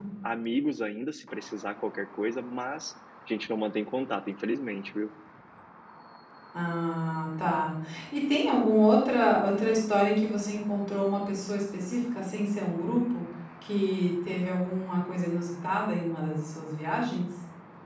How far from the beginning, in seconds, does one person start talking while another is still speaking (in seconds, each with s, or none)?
none